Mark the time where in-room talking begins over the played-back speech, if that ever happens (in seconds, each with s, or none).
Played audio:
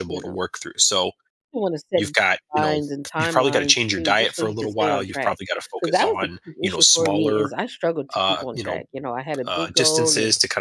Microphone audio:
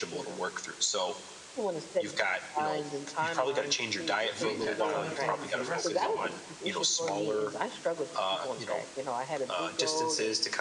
4.3 s